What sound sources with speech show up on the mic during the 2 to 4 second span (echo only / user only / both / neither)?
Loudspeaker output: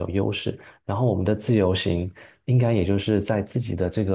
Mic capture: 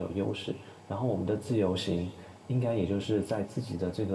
echo only